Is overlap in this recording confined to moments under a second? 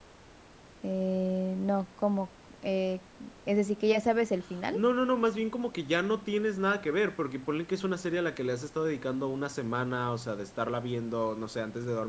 Yes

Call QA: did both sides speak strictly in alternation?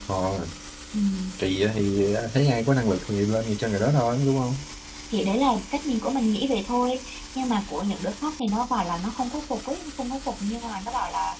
Yes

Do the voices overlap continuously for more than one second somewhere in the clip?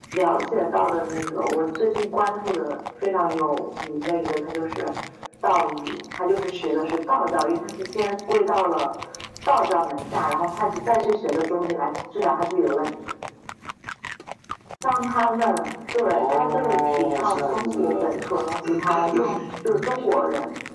Yes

